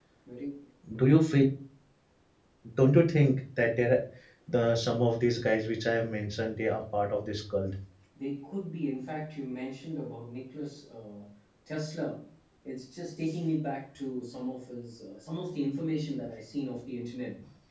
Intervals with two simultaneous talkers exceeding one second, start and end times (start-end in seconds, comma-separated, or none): none